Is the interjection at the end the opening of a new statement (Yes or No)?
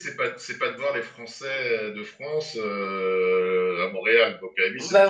No